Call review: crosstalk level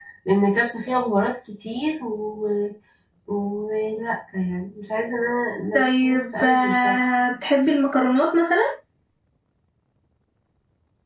present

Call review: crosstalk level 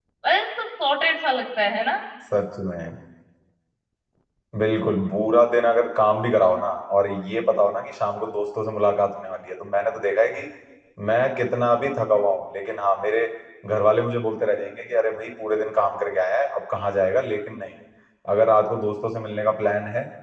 none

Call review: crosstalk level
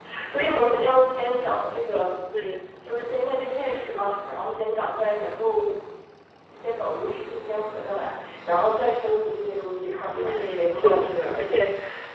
present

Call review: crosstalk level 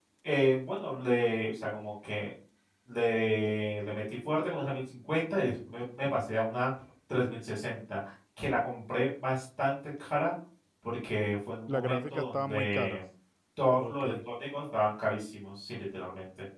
present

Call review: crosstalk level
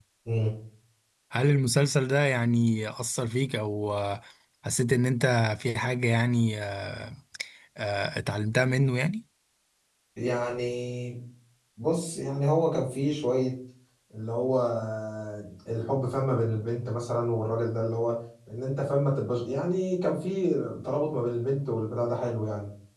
none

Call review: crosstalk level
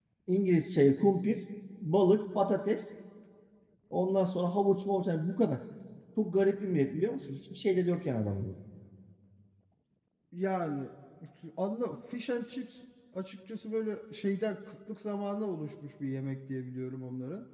none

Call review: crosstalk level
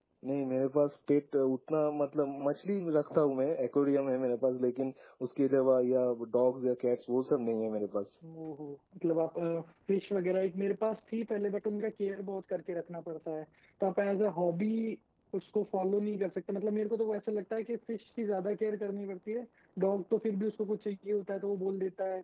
none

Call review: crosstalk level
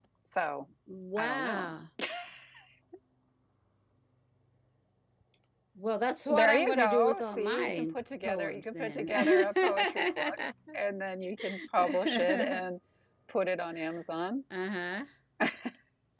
present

